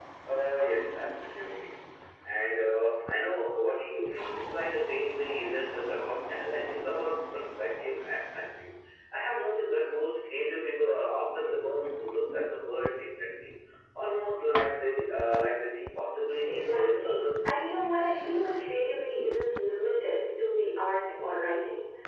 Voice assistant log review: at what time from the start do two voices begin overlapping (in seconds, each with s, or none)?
16.5 s